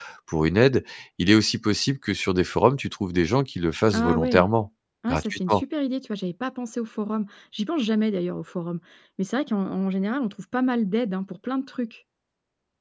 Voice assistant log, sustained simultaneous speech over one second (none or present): none